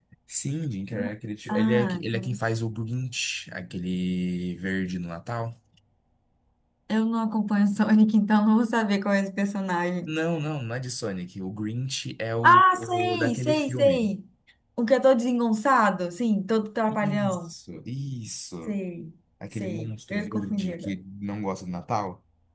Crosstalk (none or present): present